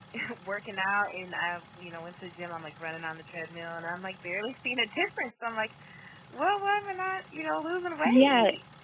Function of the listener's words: taking over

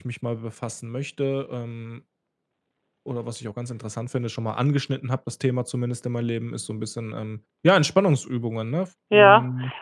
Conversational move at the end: taking over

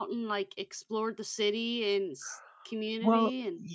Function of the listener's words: taking over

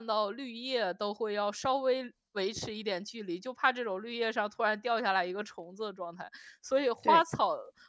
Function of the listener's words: listening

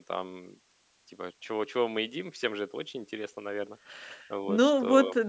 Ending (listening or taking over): taking over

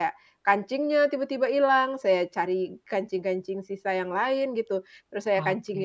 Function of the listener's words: listening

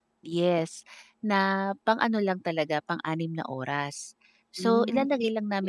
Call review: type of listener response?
listening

